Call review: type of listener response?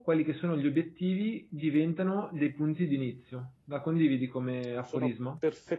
taking over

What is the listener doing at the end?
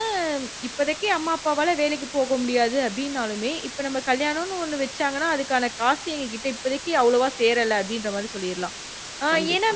listening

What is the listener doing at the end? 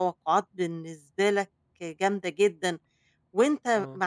listening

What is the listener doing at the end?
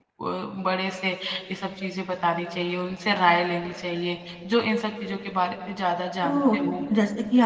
taking over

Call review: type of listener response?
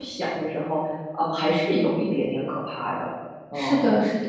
taking over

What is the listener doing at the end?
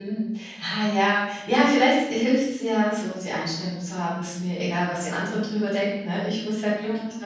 listening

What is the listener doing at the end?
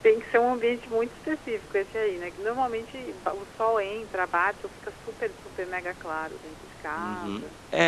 taking over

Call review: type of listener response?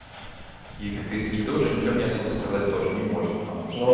listening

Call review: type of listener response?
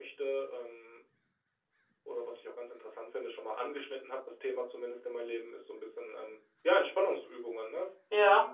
taking over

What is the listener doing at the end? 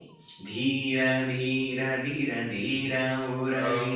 listening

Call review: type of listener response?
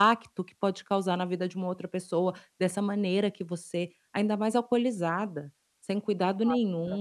taking over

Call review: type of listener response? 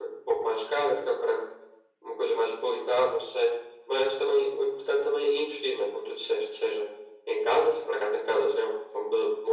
listening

